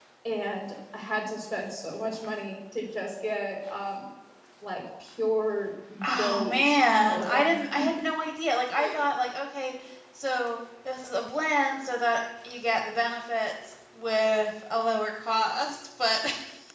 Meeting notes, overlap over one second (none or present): present